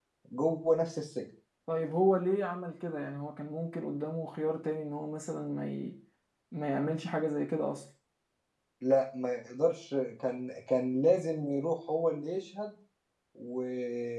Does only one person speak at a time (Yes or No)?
Yes